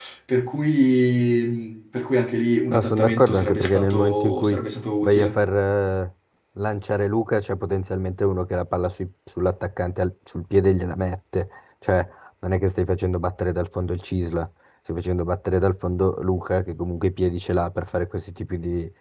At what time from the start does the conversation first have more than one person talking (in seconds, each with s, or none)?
2.7 s